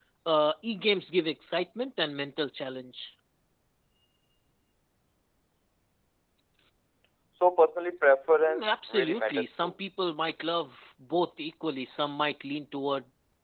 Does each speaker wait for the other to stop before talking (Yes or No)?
No